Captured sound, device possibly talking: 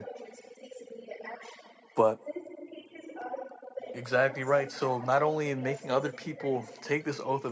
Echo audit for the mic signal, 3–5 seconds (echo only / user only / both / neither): both